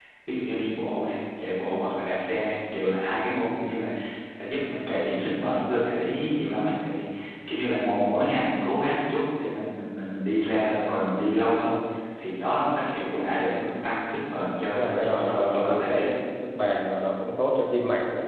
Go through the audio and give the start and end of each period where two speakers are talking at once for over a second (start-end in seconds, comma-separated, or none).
14.7-16.1